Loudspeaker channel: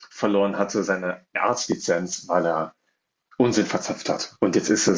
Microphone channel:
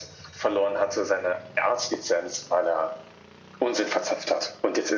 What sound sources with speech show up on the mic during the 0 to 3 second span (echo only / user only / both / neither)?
echo only